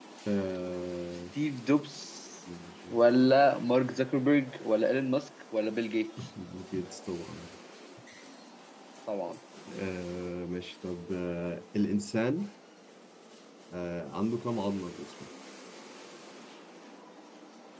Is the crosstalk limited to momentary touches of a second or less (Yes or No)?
Yes